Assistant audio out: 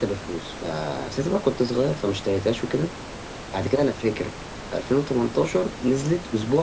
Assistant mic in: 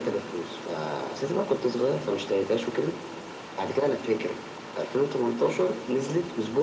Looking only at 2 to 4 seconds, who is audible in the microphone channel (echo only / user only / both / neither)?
echo only